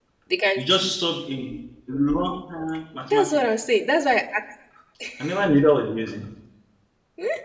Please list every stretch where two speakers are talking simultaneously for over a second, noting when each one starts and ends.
none

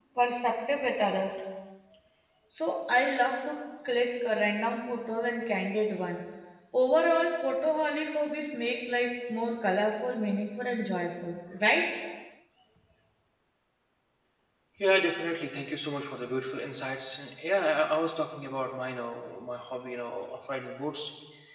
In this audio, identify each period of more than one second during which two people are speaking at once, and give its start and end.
none

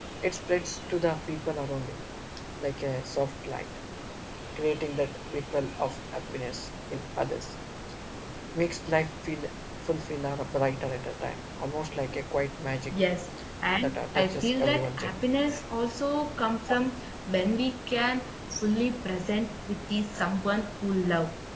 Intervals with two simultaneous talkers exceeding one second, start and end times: 13.8-15.2

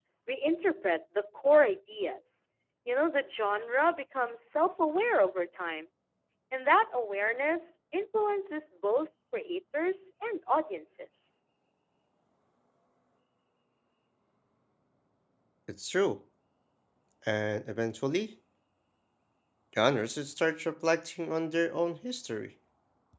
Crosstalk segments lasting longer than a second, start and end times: none

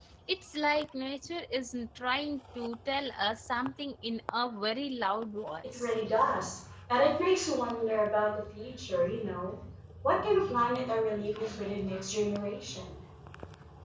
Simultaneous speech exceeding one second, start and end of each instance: none

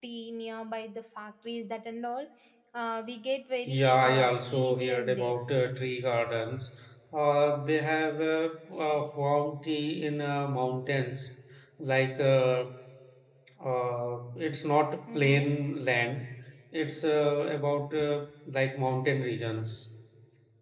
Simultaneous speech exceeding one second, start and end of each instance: 3.7-5.3

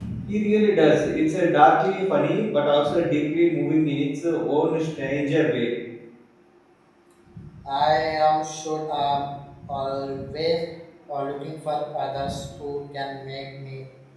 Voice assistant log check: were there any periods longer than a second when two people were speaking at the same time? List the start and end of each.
none

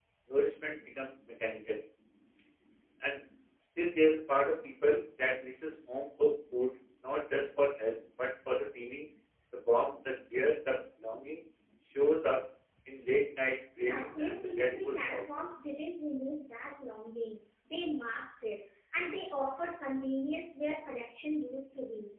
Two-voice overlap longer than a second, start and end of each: 13.8-15.2

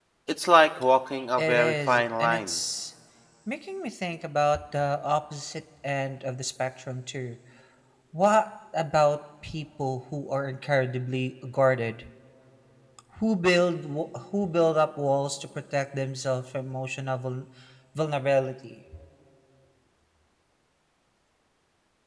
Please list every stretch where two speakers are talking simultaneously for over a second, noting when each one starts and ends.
1.4-2.6

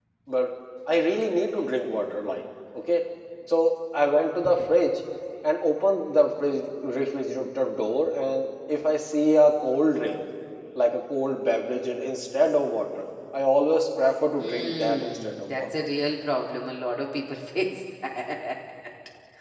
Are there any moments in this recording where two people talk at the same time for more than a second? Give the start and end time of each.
14.4-15.7

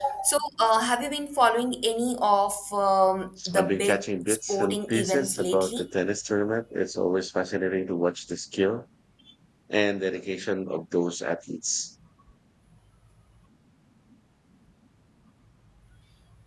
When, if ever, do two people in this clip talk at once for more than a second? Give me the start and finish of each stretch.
3.5-5.9

